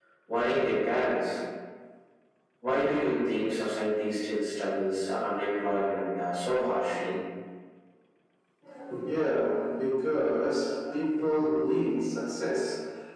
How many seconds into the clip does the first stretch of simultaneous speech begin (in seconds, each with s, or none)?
none